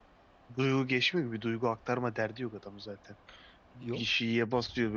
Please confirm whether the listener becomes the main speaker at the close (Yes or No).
No